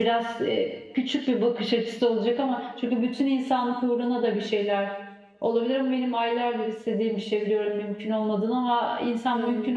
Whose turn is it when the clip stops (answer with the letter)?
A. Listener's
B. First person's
B